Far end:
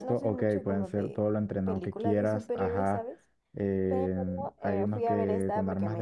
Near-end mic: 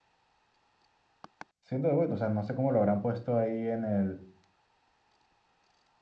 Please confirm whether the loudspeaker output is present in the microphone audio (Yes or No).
No